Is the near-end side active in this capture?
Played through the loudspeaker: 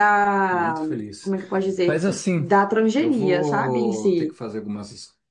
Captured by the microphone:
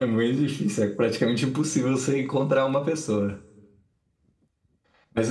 Yes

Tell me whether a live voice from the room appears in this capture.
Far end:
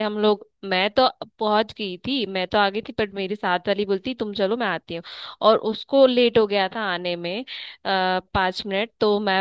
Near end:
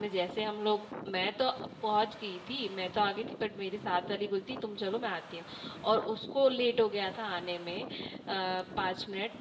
No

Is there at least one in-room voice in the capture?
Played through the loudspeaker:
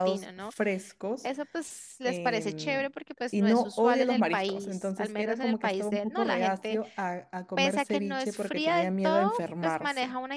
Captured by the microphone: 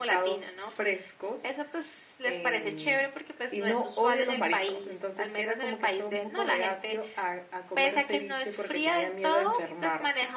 No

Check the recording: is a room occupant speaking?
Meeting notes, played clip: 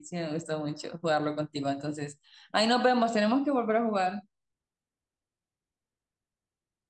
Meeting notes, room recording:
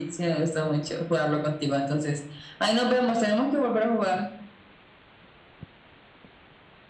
No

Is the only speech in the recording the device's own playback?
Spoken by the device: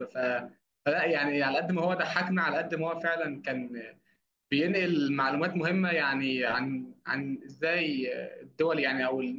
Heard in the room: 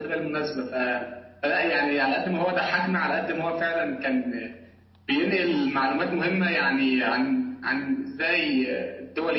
Yes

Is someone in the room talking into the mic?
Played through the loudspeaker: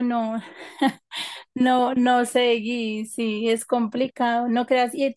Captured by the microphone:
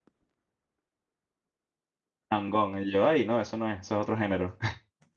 Yes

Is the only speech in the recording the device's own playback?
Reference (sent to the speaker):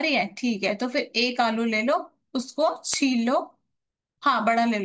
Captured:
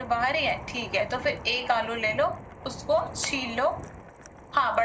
Yes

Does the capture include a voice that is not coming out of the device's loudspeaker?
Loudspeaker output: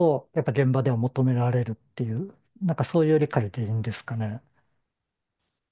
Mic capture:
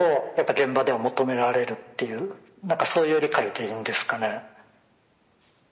No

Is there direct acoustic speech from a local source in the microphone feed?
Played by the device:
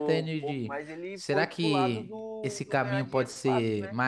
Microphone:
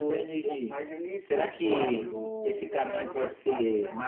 Yes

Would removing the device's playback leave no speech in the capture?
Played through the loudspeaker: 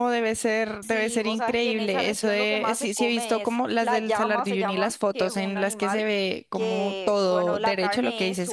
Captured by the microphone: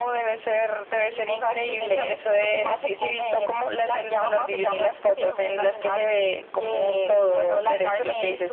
Yes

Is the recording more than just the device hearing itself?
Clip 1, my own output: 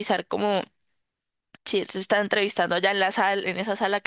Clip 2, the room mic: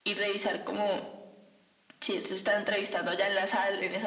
No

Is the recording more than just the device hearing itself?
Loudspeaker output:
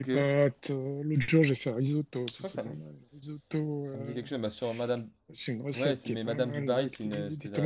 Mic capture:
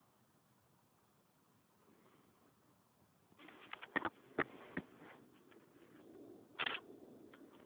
No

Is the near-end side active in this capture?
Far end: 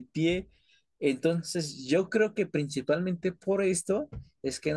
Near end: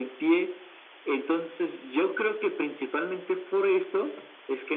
No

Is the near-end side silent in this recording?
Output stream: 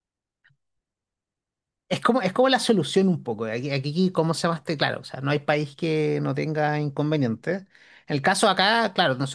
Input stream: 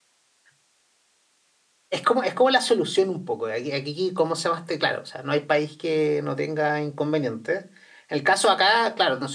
Yes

